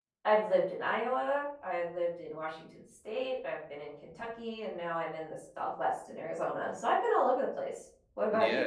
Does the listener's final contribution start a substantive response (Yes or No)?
Yes